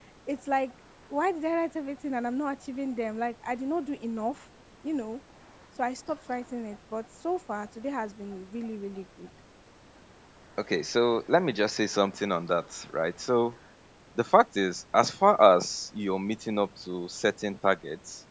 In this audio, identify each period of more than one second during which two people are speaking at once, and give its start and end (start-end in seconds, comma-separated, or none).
none